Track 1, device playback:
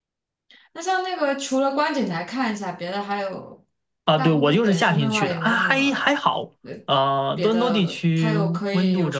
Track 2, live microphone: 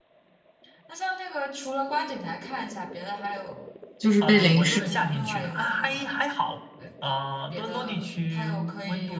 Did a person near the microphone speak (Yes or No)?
Yes